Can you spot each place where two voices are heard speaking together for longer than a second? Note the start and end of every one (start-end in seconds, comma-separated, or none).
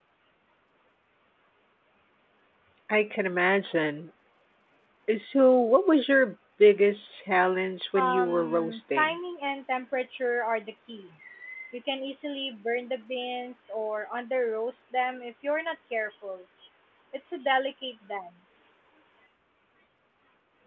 8.0-9.2